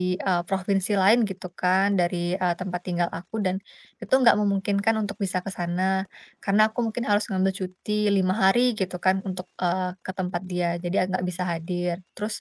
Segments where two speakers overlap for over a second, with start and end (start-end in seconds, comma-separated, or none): none